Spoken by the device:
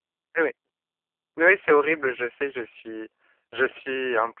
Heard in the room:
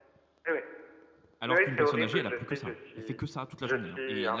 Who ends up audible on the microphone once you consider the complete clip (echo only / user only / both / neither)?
both